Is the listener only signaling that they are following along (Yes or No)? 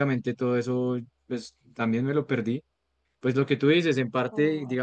Yes